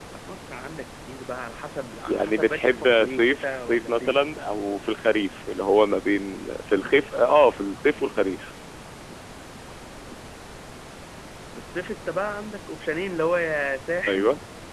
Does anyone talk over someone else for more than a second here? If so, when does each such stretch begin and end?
2.1-4.2

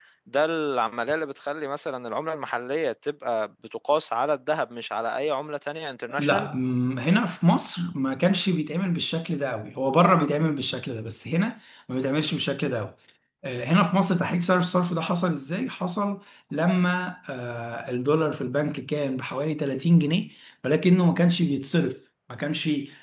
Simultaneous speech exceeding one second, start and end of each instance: none

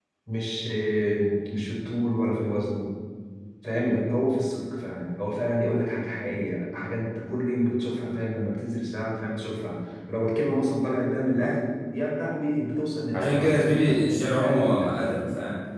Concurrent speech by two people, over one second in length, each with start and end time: 13.1-15.2

